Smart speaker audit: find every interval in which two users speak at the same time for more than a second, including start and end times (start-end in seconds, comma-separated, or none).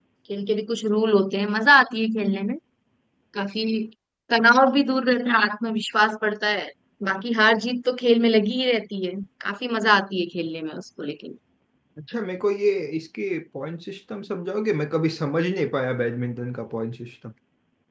none